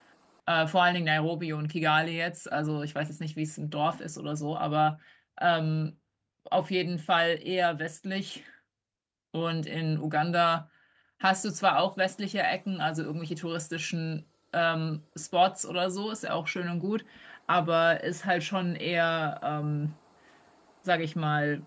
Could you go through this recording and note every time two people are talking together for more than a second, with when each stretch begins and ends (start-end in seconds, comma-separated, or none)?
none